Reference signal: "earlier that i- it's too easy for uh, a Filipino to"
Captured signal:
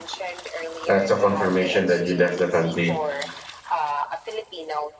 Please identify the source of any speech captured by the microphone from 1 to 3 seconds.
both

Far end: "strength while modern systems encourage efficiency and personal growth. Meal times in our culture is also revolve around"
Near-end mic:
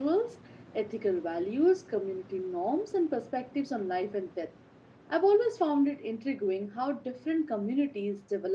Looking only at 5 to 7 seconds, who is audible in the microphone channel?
user only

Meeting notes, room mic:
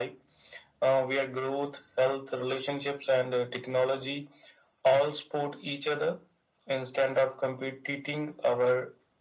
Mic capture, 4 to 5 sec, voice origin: echo only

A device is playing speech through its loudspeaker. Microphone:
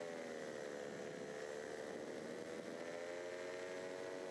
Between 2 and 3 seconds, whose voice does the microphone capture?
neither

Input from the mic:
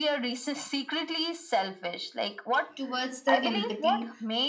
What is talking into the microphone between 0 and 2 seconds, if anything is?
echo only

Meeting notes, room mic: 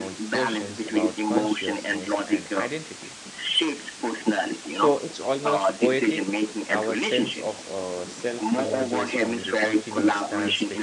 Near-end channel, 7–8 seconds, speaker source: both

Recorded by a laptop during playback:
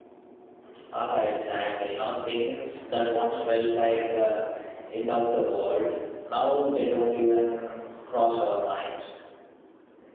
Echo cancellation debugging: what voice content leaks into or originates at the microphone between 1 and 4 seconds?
user only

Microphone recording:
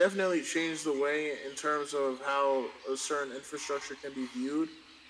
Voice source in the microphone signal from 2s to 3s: echo only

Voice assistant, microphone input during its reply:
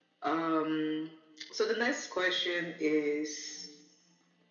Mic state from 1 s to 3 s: echo only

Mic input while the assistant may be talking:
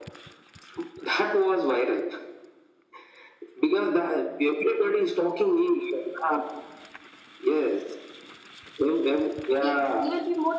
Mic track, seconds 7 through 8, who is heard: echo only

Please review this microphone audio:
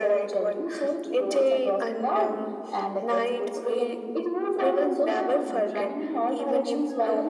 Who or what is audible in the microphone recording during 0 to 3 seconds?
echo only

